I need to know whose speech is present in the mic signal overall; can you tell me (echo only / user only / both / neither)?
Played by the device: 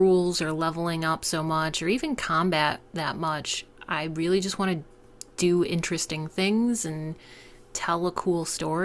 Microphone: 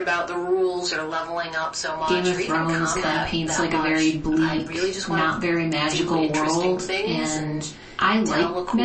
both